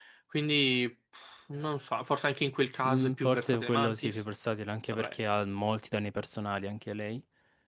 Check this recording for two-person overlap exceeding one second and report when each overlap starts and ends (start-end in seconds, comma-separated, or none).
2.9-4.2